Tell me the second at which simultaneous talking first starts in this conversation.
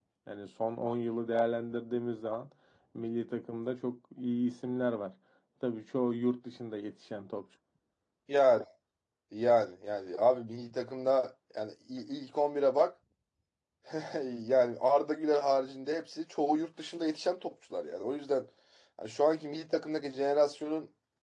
none

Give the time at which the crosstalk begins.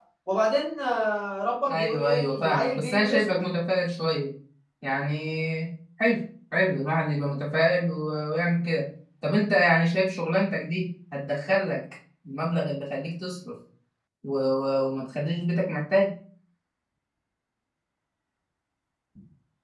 1.7 s

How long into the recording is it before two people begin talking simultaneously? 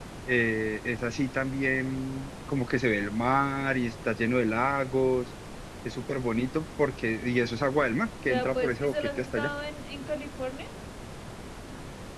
8.3 s

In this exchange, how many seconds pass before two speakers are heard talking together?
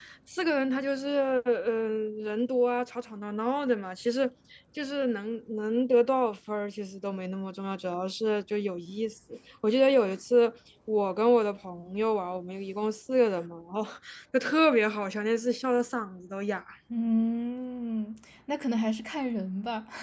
none

